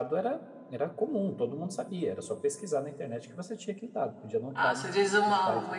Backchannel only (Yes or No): No